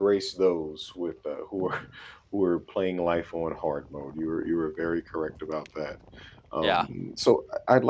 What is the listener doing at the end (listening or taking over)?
listening